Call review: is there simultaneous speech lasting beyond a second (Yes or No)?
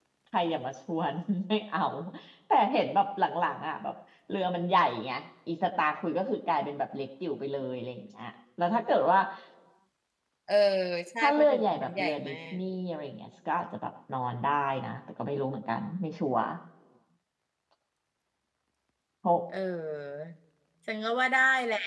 Yes